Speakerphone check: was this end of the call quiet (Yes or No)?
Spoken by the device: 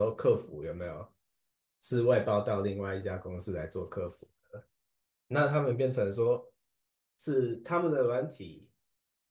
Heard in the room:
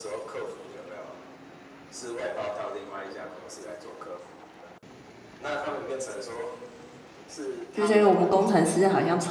No